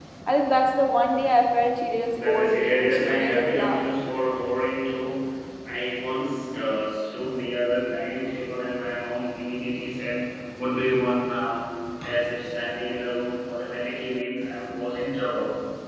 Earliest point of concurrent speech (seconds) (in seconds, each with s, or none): 2.1 s